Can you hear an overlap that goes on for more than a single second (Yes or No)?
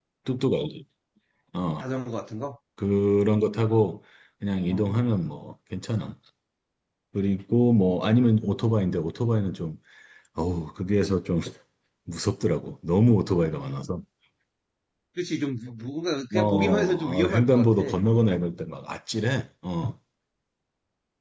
Yes